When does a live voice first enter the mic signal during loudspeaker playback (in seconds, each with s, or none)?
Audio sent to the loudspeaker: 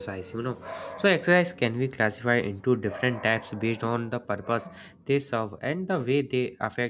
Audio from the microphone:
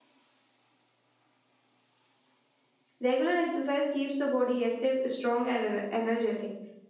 3.0 s